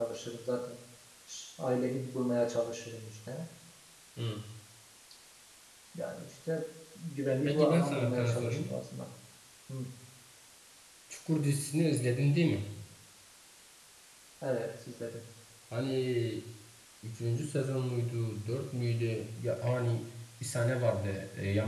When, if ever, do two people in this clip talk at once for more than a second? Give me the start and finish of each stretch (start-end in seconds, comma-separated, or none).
7.4-8.7